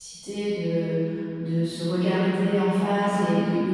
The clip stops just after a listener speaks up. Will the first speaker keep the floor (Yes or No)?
Yes